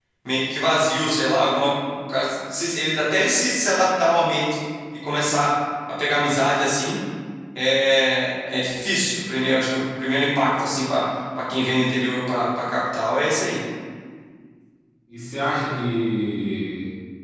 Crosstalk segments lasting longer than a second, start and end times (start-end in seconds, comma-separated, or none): none